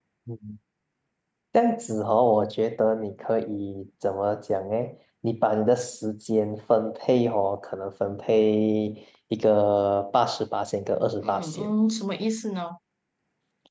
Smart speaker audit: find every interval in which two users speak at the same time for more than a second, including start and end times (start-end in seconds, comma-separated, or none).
none